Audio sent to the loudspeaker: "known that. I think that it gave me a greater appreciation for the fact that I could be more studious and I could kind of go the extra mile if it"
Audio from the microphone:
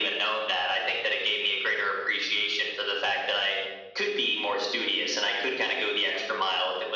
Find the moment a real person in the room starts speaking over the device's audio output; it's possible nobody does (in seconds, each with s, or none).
none